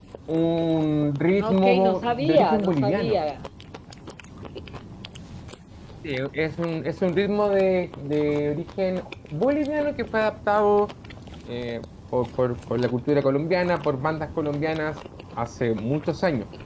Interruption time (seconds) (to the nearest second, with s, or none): 1 s